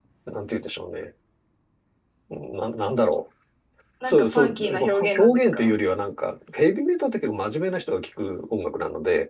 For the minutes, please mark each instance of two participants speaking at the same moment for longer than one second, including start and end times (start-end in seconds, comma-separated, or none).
4.0-5.7